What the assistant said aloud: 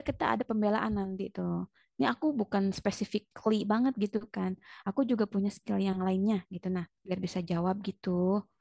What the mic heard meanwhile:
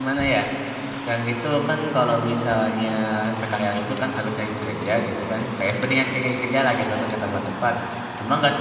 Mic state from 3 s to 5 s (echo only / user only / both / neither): user only